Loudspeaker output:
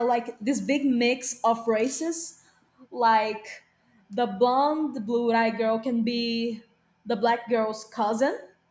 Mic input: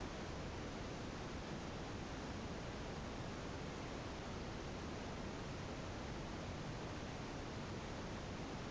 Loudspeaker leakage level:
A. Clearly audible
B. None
B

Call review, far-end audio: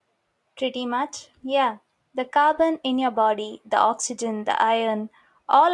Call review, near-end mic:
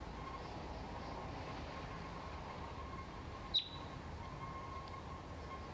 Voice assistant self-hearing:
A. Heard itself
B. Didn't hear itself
B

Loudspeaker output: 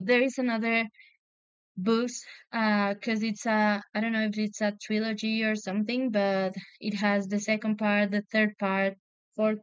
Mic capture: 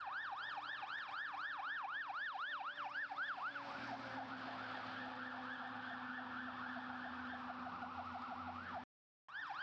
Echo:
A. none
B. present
A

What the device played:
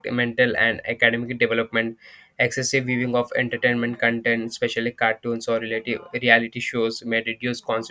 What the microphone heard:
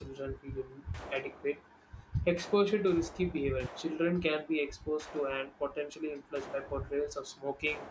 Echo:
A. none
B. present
A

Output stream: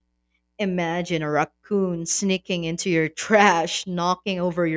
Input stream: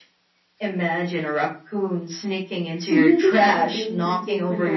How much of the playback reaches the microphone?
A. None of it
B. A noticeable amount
B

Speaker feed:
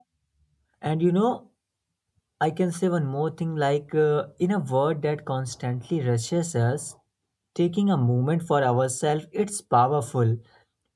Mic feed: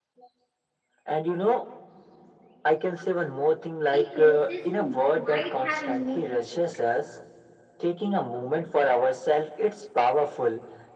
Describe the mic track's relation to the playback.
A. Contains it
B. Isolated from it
A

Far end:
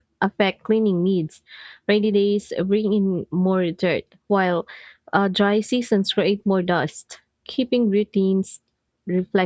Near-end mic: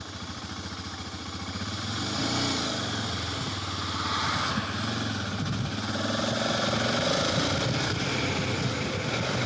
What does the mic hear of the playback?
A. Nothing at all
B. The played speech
A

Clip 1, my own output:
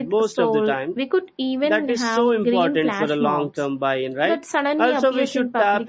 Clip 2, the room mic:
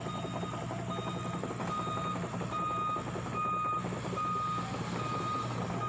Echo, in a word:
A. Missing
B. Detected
A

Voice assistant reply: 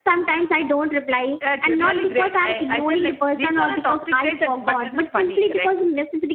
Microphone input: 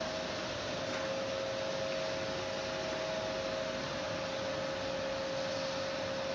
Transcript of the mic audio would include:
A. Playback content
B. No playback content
B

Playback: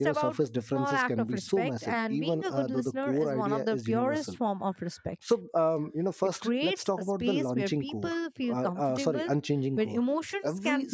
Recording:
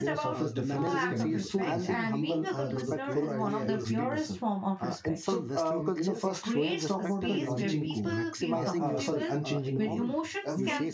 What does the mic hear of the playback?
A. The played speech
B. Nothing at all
A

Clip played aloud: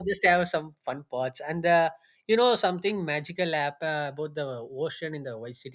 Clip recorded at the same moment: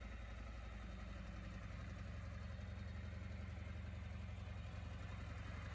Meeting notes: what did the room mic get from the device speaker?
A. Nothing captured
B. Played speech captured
A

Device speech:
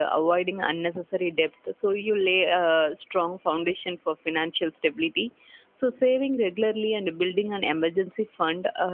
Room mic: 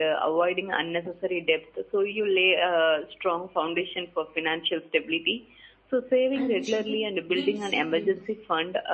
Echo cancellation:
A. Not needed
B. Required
B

